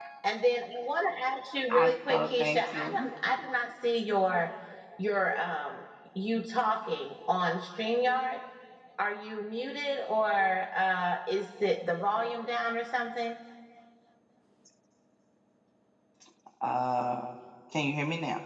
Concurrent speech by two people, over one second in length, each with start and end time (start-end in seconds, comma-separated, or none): 1.7-3.1